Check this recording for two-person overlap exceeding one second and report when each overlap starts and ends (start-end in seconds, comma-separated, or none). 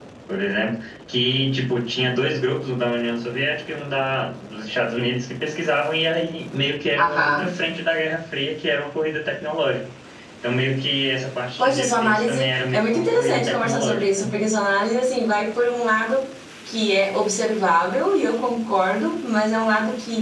11.6-14.3